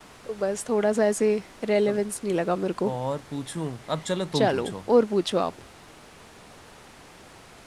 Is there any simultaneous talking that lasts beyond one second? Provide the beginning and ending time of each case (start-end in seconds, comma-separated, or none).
none